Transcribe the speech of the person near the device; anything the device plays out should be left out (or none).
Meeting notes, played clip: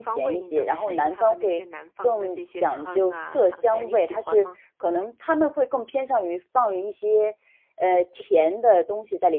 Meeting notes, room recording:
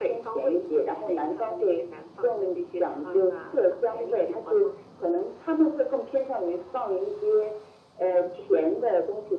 none